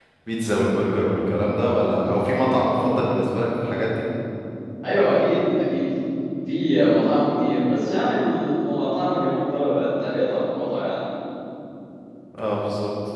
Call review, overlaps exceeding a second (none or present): none